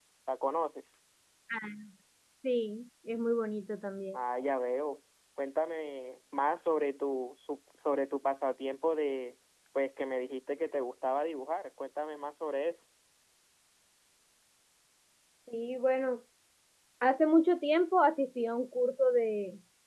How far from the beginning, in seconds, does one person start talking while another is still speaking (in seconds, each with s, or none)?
none